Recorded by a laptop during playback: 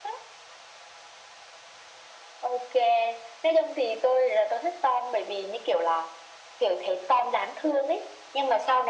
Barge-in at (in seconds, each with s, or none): none